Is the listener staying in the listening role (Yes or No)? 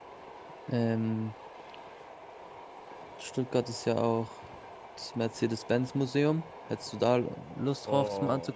No